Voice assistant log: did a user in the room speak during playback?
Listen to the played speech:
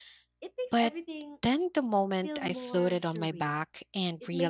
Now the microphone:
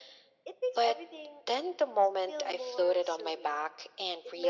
No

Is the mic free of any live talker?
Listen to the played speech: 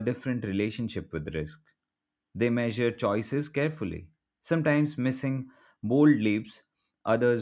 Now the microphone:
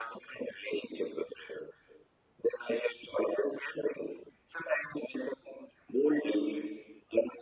Yes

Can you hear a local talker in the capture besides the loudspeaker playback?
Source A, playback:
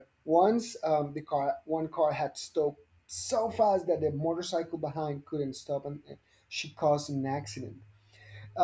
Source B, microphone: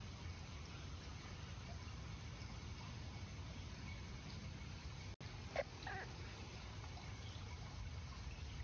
No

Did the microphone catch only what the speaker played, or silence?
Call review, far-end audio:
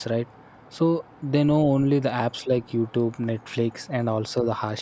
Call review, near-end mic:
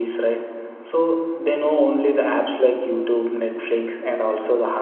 Yes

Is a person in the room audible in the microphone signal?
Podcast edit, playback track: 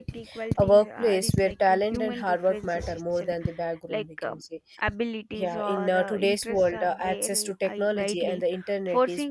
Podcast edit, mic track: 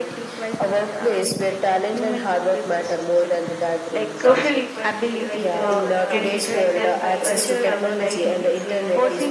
Yes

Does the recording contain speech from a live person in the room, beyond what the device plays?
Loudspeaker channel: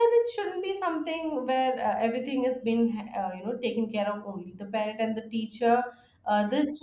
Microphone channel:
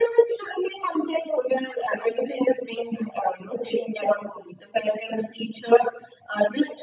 No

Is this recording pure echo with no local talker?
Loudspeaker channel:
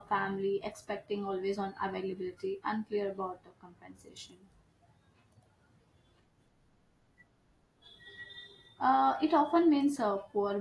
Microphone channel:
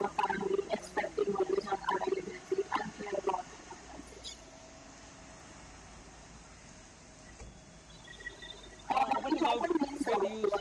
No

